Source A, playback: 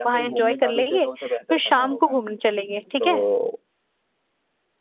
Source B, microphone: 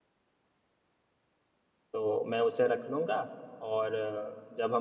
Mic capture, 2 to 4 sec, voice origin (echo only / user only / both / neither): user only